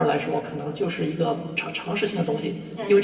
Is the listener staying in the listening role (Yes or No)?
Yes